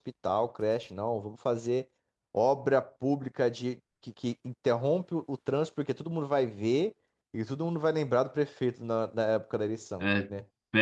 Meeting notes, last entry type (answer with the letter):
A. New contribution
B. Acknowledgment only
A